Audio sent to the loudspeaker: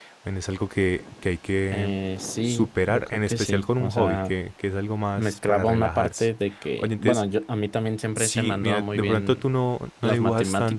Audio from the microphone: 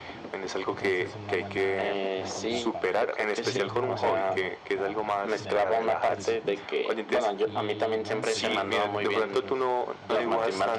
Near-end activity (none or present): present